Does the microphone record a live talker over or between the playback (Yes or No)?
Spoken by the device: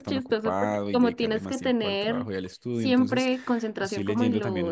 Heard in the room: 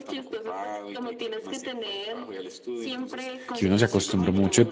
Yes